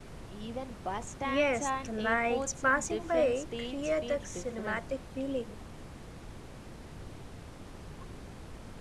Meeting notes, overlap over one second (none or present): present